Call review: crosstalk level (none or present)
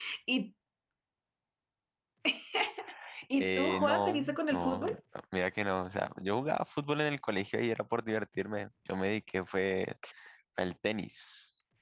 present